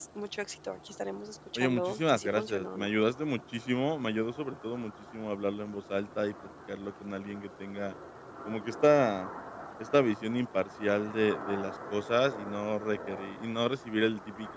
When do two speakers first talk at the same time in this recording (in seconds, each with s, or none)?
1.6 s